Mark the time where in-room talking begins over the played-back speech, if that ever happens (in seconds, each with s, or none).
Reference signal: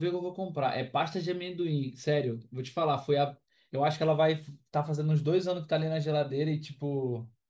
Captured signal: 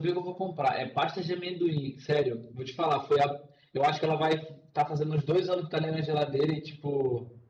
none